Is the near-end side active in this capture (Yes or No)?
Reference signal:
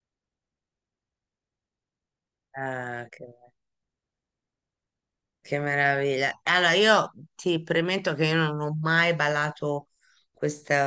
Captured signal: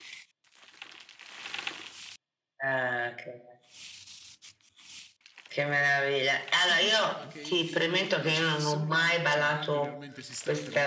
Yes